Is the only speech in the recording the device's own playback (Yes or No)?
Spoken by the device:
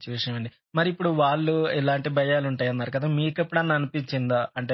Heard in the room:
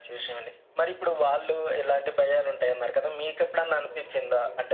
No